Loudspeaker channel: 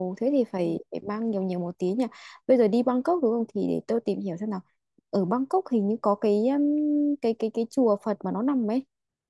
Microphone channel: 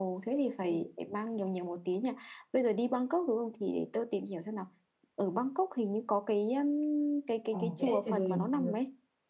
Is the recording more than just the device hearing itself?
Yes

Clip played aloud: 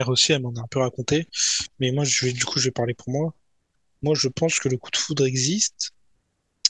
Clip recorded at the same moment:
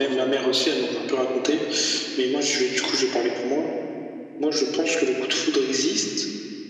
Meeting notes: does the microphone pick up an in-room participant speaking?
No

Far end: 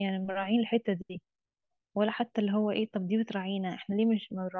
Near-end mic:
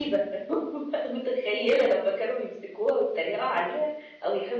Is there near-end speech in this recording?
Yes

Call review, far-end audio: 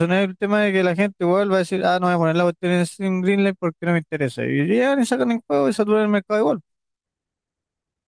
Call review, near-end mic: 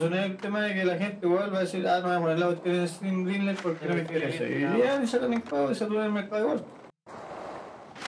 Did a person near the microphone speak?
Yes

